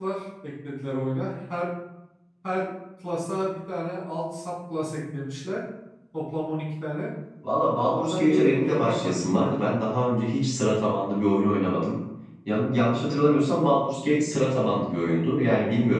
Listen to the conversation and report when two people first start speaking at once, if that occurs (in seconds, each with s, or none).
7.9 s